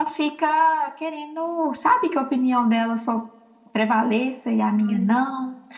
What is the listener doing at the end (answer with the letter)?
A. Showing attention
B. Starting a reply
A